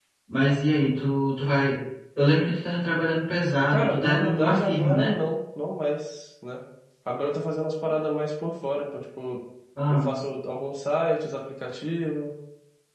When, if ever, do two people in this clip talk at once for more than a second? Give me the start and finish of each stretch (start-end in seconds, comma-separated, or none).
3.7-5.1